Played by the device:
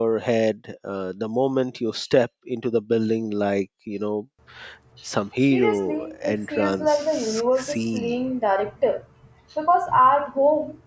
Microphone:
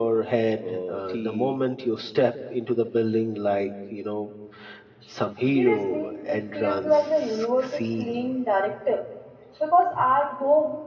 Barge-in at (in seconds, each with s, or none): 0.7 s